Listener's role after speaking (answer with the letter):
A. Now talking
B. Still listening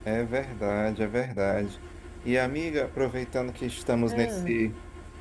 B